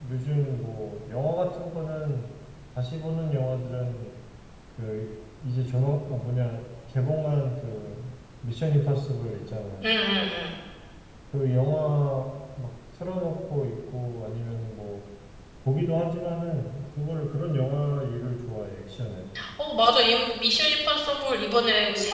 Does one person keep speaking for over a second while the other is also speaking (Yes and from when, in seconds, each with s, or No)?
No